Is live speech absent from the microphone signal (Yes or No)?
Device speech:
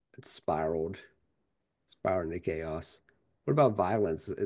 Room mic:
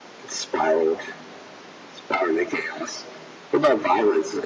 Yes